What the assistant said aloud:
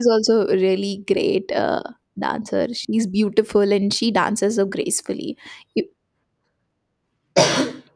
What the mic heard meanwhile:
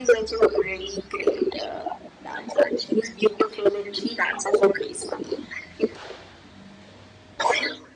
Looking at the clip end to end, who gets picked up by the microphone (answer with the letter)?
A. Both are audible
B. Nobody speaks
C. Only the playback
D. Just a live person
C